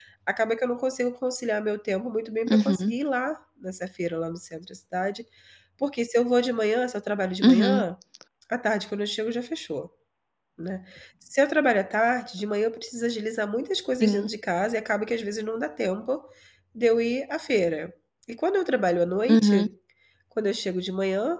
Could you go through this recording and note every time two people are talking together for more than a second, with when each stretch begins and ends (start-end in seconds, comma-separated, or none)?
none